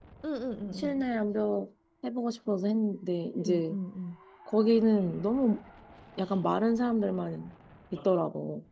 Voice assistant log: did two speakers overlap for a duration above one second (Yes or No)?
No